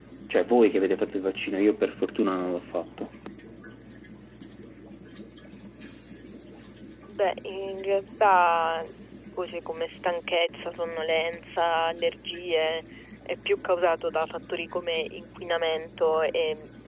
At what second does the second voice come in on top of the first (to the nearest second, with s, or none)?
none